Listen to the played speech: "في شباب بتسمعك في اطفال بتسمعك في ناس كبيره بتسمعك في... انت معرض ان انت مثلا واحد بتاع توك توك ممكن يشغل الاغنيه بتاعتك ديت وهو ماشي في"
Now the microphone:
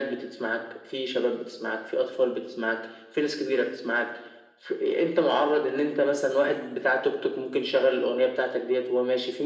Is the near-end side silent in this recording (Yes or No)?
Yes